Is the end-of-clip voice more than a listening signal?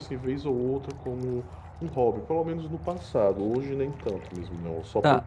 Yes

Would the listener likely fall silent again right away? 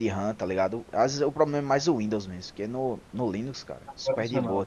Yes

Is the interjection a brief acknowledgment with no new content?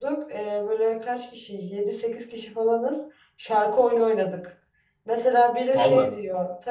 Yes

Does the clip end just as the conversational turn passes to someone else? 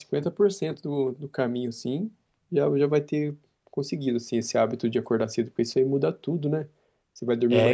No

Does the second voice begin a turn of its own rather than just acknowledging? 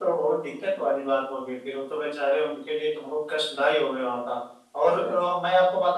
No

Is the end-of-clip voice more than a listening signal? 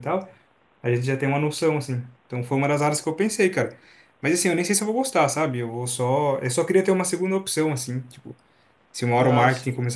No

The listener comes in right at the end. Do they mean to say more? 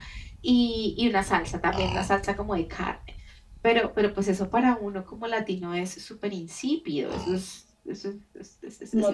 Yes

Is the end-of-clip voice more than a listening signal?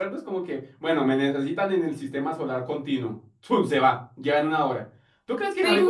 Yes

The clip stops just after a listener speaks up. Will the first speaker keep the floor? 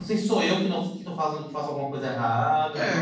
No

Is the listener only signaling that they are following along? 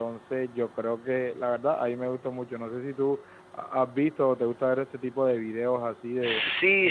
No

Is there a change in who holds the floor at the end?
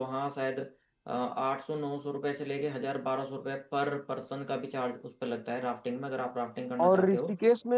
Yes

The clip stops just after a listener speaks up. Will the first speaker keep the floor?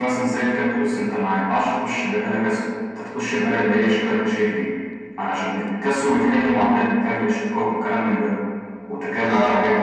Yes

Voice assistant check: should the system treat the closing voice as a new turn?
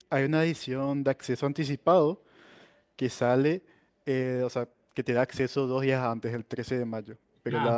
Yes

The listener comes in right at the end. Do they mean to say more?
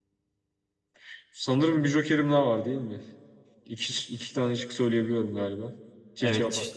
Yes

